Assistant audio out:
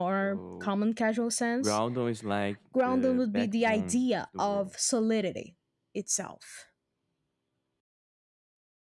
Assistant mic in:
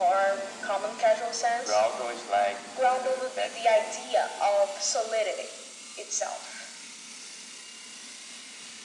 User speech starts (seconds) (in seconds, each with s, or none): none